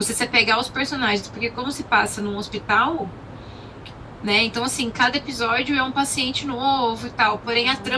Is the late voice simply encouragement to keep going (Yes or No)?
Yes